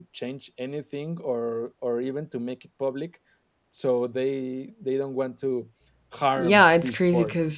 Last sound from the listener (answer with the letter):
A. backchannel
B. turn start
B